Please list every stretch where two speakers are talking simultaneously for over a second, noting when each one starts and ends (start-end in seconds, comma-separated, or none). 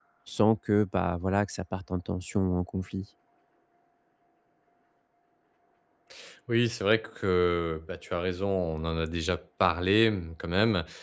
none